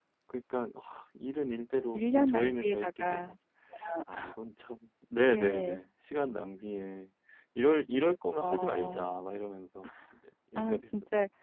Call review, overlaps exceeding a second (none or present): present